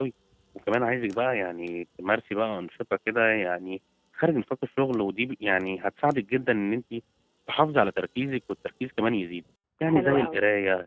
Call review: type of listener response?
listening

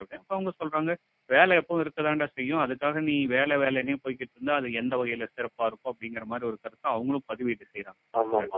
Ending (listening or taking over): taking over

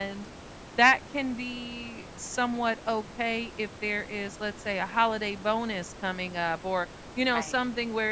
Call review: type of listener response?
listening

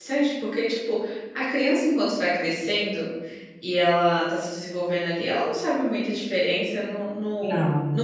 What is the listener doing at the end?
listening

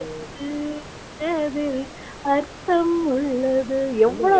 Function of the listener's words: taking over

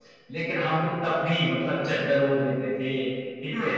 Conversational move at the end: listening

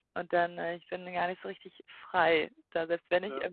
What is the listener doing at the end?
listening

